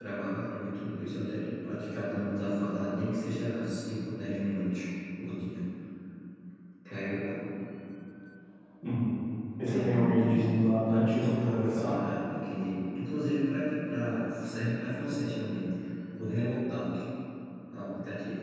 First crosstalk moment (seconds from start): 9.7 s

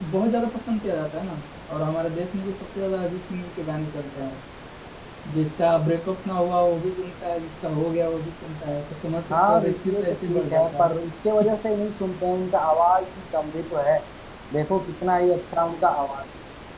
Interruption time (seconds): 9.3 s

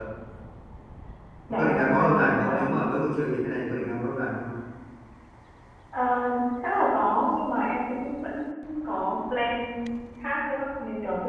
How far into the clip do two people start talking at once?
1.6 s

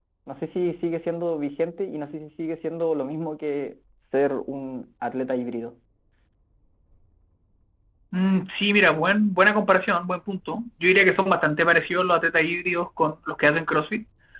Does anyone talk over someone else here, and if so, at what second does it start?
none

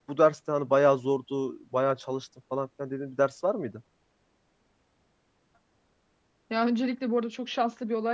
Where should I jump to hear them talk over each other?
none

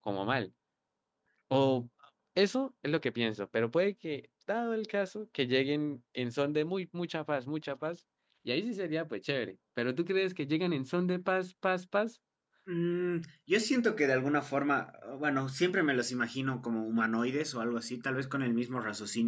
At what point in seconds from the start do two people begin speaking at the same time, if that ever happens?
none

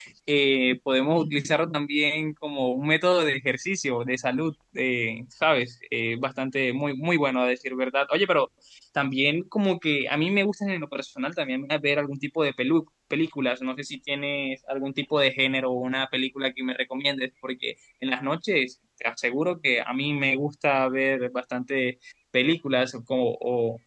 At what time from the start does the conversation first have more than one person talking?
none

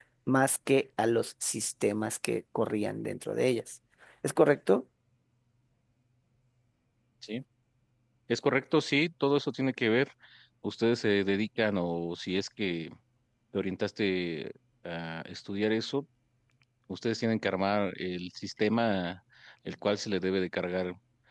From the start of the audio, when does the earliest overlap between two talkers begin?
none

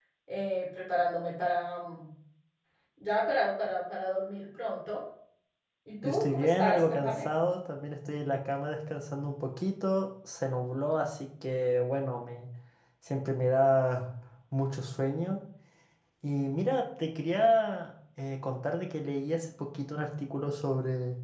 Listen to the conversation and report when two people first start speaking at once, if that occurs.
6.0 s

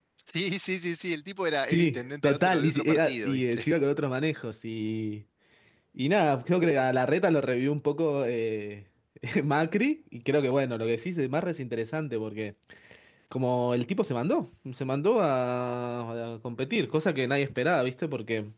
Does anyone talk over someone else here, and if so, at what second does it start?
1.7 s

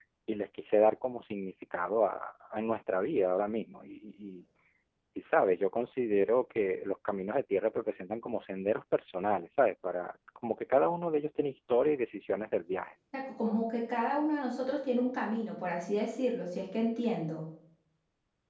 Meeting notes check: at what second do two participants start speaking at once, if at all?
none

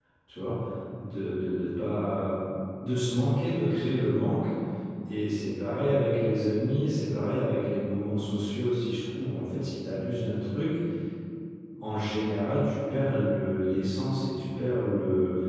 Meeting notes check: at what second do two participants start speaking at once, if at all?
none

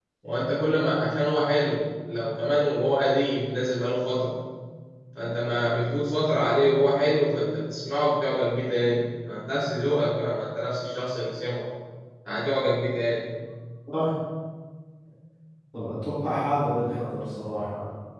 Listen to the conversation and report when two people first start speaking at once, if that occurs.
none

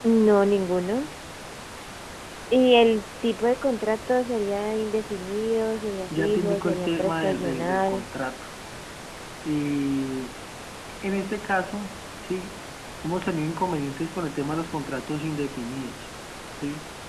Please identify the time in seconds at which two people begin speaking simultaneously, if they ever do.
6.1 s

